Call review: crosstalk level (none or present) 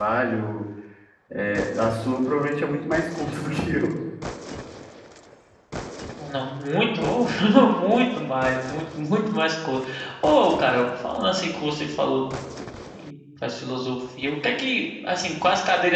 none